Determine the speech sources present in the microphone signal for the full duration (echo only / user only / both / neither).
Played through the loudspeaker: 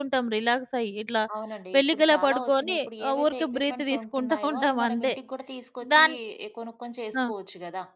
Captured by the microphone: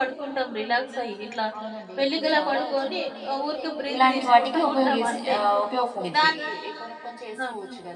both